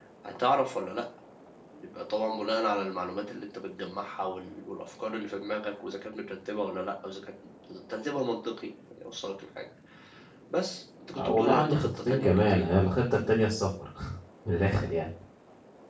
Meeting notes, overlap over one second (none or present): present